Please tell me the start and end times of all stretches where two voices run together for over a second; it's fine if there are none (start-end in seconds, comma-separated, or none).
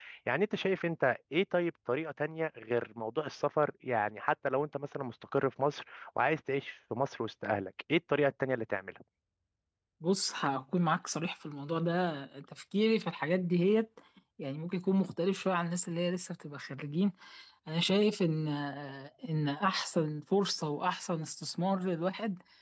none